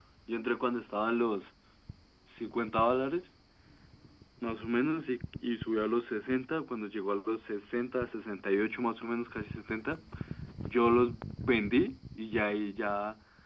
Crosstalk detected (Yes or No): No